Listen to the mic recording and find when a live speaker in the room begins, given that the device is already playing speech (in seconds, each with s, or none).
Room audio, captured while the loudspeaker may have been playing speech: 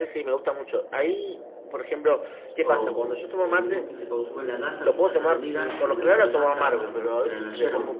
2.6 s